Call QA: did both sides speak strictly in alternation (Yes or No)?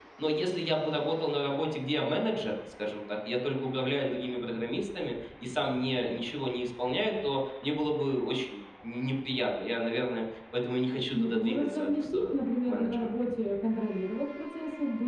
No